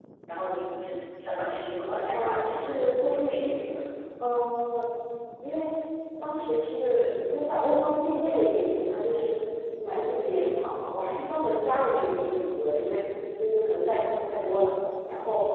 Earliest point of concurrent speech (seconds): 2 s

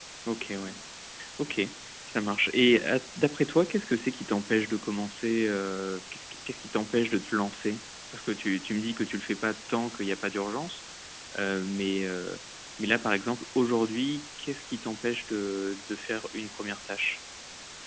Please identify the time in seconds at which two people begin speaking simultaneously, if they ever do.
none

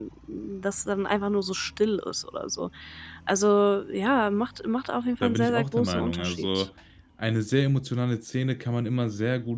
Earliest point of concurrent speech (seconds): 5 s

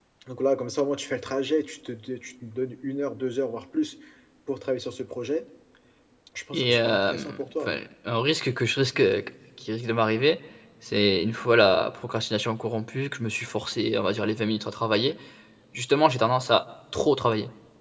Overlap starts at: 7 s

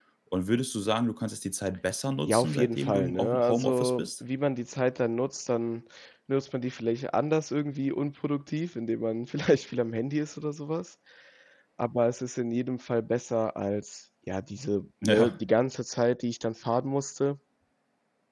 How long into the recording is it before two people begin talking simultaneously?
2 s

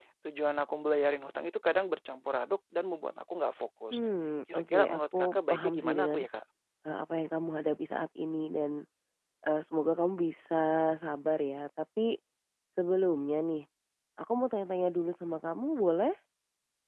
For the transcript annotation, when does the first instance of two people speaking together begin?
5 s

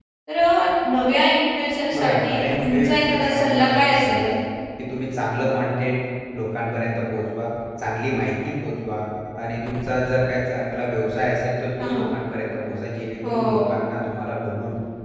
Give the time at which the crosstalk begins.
2 s

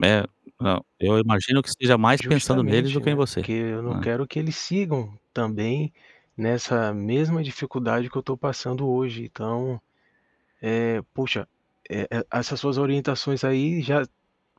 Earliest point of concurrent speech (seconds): 2 s

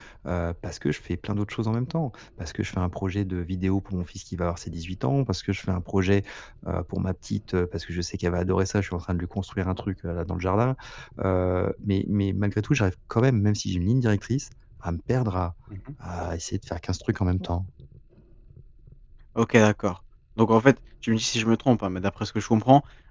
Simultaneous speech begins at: none

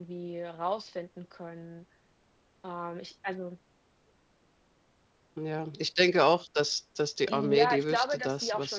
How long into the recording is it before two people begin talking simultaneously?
7 s

